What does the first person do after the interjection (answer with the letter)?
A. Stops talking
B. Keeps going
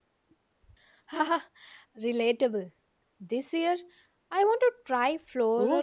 A